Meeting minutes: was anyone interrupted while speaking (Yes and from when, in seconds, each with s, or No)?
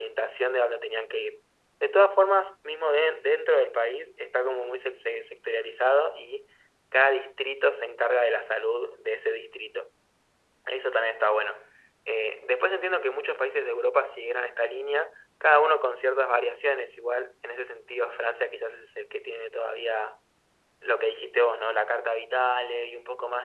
No